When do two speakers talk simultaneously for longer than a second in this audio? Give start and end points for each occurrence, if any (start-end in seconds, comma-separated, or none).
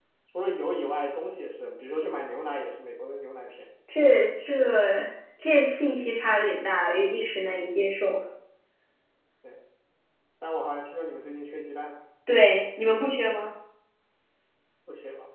none